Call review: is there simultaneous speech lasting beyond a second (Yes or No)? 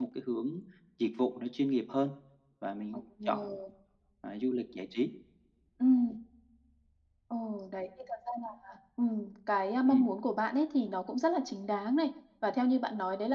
No